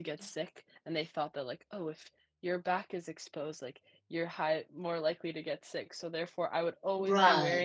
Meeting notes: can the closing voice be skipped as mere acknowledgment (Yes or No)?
Yes